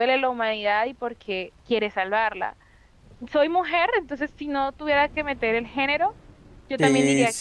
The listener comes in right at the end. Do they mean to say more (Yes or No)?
Yes